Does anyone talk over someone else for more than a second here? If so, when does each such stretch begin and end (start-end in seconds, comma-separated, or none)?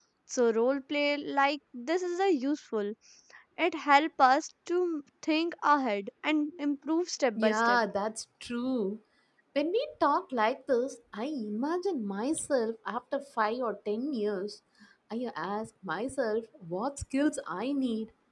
none